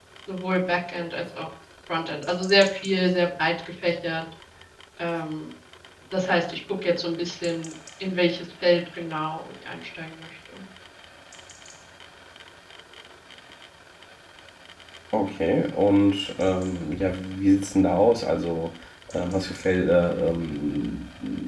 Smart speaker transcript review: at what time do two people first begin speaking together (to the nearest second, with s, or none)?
none